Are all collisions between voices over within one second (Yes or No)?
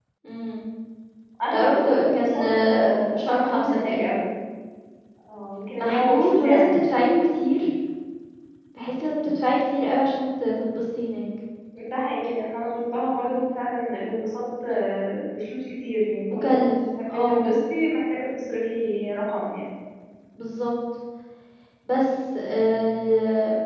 No